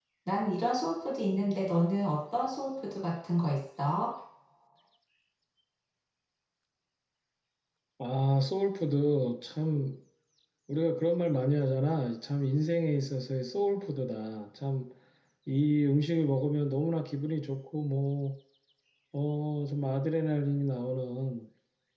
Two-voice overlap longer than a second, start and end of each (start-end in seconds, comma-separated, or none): none